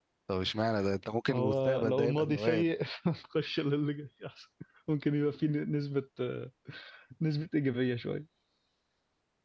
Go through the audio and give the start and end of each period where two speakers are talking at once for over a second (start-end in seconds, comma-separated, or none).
1.3-2.7